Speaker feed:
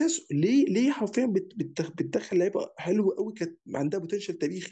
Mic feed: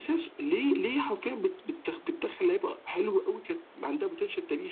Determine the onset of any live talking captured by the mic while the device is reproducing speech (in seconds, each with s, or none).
none